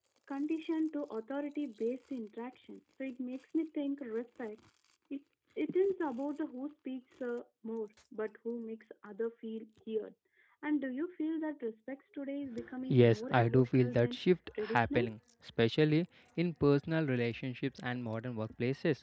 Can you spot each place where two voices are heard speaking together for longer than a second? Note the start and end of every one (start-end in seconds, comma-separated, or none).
12.9-14.2